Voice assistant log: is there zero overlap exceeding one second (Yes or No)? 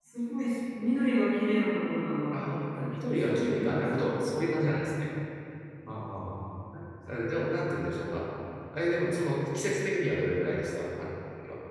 No